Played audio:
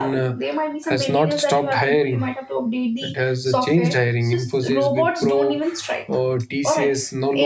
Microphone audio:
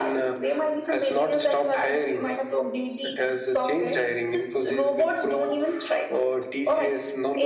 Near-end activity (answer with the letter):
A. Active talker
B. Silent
B